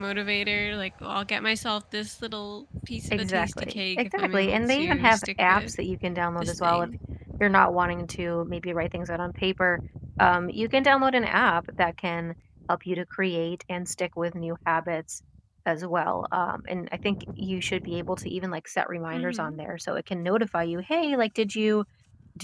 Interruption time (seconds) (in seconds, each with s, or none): 3.1 s